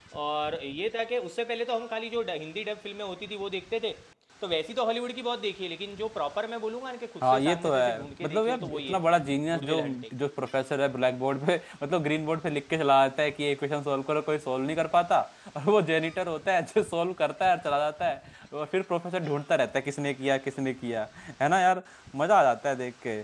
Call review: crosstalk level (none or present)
present